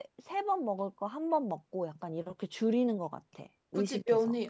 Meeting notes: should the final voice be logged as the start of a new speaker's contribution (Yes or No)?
Yes